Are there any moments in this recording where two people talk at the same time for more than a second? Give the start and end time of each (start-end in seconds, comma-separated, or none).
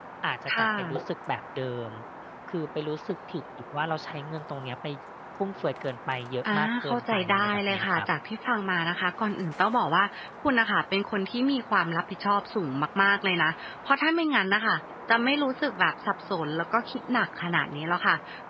6.5-8.0